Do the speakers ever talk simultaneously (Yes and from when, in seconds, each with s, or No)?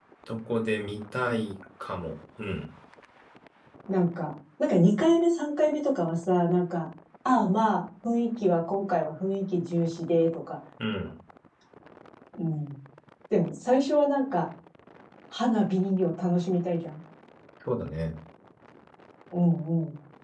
No